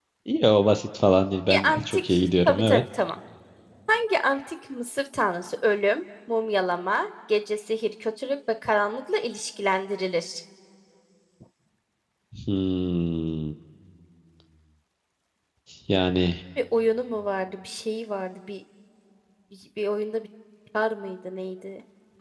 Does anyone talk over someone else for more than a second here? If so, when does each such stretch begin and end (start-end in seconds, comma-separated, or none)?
1.5-2.8